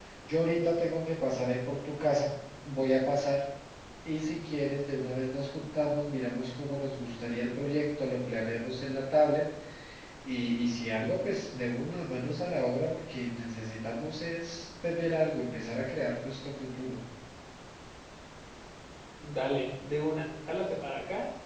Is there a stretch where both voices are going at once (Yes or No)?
No